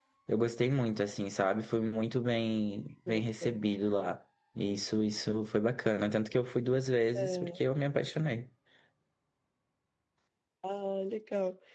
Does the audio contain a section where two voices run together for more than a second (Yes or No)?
No